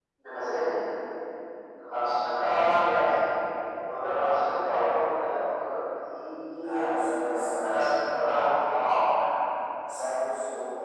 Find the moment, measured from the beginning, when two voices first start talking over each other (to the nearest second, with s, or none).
7 s